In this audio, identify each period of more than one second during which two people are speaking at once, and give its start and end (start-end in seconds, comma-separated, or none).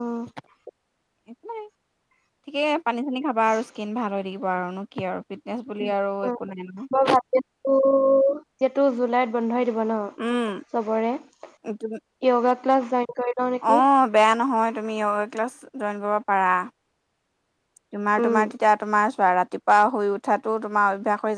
none